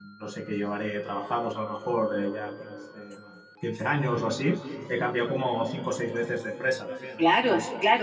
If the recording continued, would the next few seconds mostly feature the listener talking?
Yes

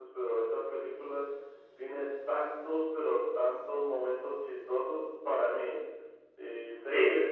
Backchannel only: Yes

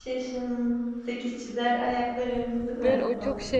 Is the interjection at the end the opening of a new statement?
Yes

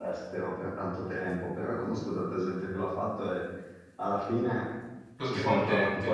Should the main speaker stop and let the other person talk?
No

